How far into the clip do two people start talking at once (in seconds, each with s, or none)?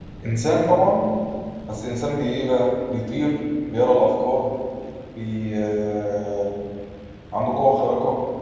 none